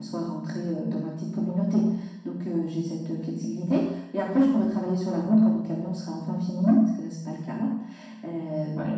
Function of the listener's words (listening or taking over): listening